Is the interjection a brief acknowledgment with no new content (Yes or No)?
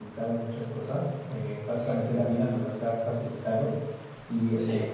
Yes